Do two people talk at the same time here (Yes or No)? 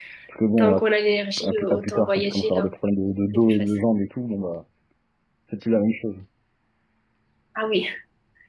Yes